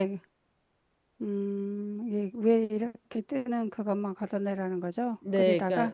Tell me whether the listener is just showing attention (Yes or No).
No